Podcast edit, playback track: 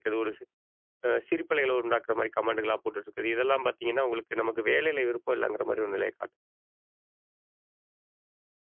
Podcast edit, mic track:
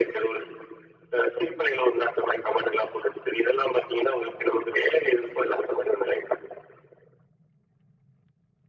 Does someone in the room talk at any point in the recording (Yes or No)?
No